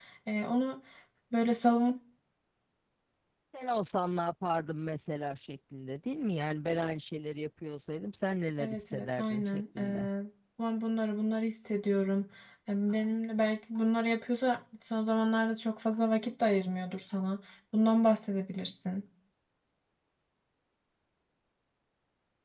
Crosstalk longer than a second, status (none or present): present